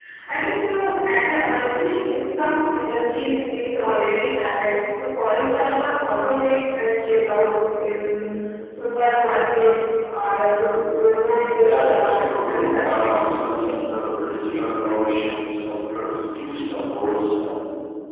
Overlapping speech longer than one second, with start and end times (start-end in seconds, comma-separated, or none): 11.6-13.2